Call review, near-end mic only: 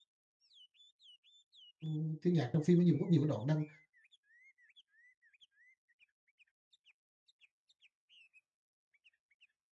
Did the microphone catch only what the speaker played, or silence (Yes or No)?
No